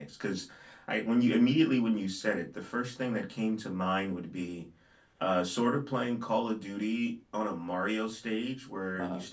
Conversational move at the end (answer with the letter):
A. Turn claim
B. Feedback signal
B